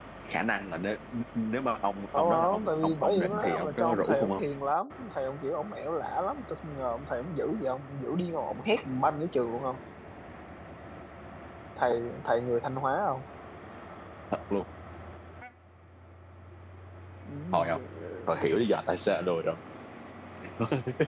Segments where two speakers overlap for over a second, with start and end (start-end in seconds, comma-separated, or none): 2.2-4.4